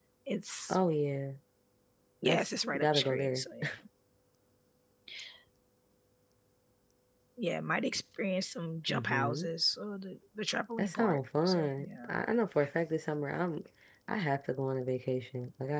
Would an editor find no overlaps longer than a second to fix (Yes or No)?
No